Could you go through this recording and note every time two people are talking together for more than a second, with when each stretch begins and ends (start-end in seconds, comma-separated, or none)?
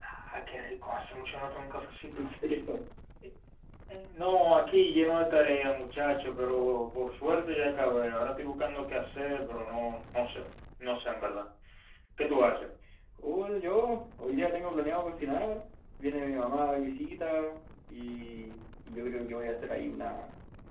none